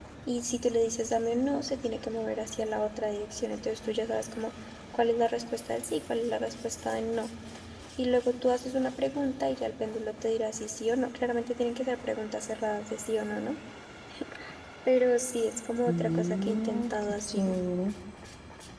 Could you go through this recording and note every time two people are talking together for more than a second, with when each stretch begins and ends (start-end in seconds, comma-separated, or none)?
15.9-17.5